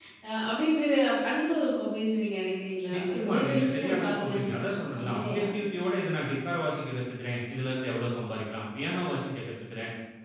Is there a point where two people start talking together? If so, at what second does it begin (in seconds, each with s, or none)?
2.9 s